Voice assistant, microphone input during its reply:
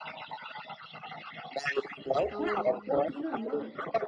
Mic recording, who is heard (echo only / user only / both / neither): both